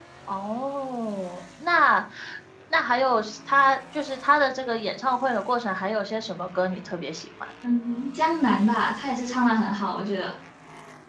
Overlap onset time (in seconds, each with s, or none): none